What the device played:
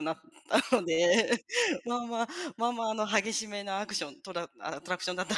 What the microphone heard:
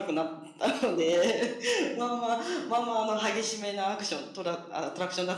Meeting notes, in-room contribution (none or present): none